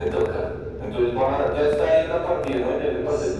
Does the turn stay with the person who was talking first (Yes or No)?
No